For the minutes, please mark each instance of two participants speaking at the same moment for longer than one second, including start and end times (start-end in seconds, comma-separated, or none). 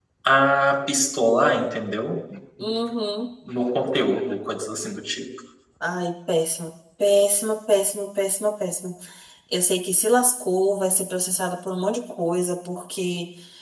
none